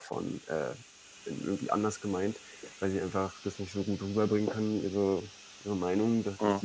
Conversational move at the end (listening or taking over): listening